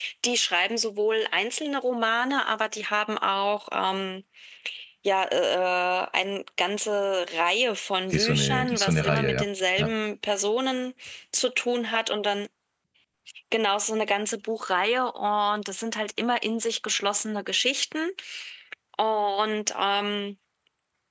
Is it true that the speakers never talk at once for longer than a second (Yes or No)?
No